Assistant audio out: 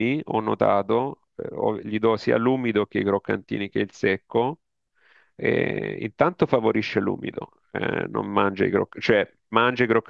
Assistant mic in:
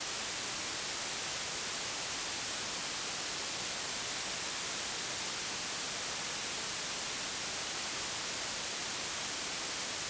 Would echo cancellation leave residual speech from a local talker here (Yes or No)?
No